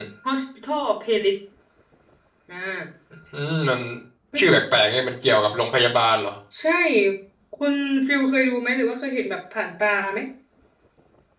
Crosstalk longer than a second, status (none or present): none